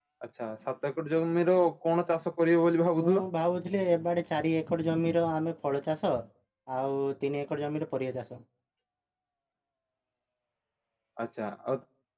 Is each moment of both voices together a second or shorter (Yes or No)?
Yes